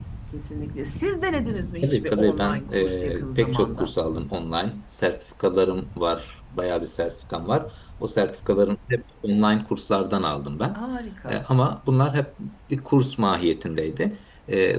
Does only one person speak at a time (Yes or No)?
No